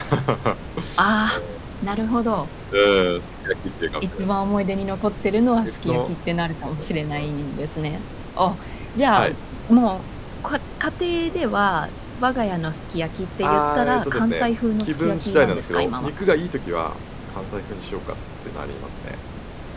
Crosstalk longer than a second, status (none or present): present